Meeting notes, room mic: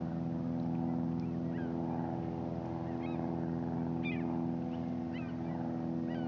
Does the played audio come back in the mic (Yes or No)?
No